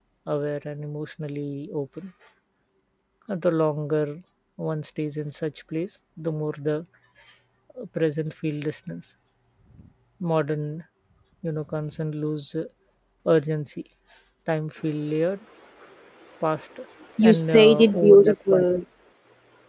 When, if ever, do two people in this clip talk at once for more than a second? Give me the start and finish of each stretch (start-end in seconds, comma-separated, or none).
17.2-18.6